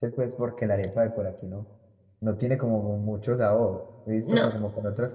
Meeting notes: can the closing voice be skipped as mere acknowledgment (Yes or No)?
Yes